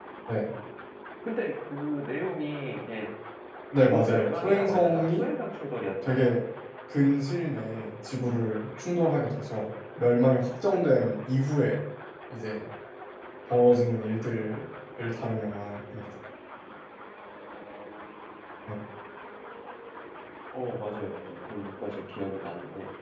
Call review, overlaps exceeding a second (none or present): present